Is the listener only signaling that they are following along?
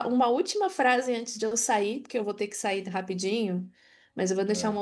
Yes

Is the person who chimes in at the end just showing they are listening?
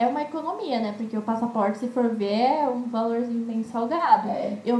Yes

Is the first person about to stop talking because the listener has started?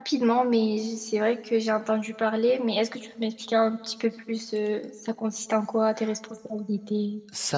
Yes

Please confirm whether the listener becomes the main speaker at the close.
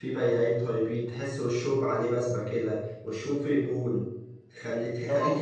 No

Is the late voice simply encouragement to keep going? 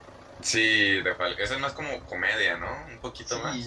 No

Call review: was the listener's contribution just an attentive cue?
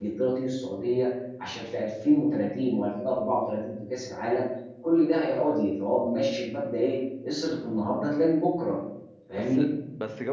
No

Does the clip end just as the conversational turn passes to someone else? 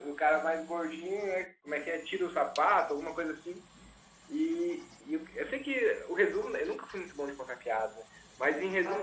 No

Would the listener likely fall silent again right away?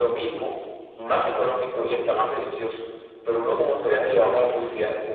Yes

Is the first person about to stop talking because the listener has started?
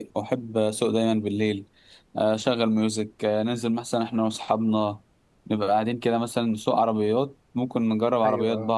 No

